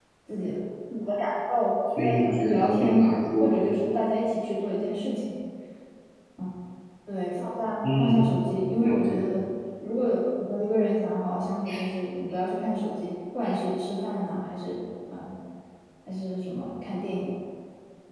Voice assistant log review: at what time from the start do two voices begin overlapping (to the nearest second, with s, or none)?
2 s